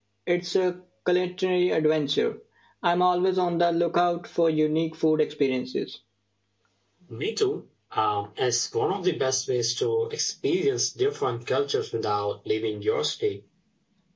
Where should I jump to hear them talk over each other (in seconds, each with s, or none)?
none